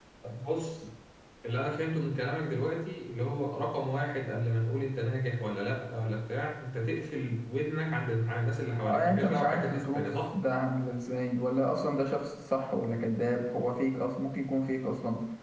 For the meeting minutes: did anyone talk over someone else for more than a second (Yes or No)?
Yes